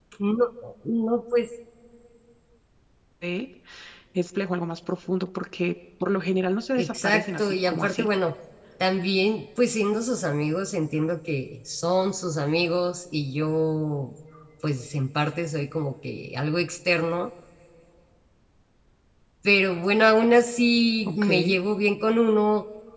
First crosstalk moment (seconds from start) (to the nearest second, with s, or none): 7 s